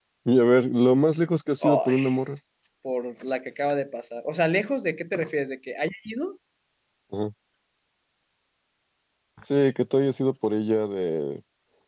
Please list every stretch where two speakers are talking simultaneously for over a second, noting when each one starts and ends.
none

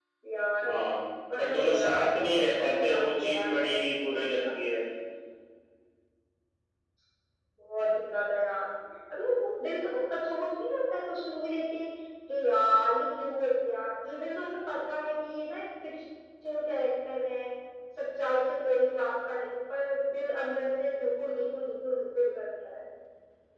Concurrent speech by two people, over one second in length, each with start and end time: 1.4-4.6

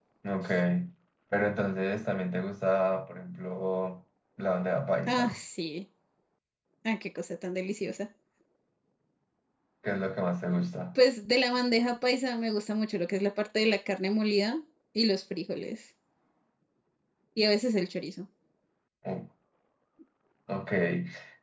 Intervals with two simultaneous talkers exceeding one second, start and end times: none

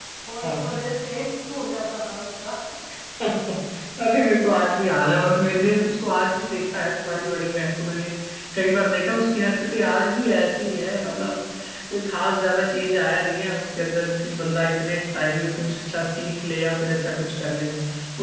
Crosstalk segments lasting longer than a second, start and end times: none

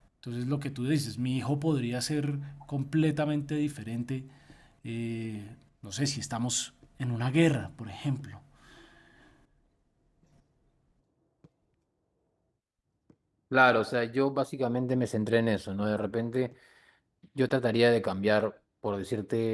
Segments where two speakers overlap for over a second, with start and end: none

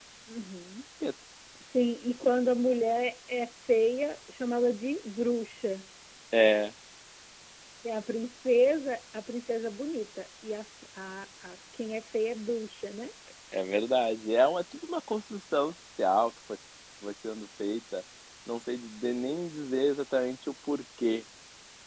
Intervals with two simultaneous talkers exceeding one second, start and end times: none

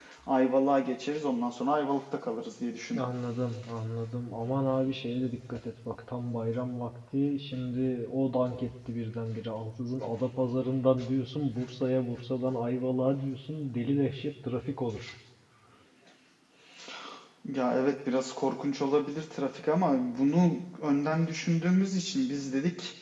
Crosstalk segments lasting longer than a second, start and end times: none

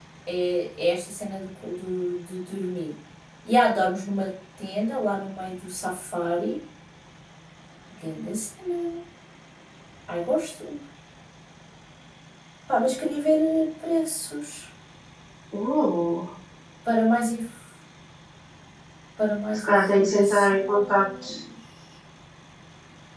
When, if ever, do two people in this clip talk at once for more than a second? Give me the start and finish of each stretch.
19.5-21.1

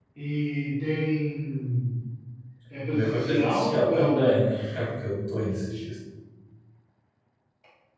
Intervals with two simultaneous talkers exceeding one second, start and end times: 2.9-4.5

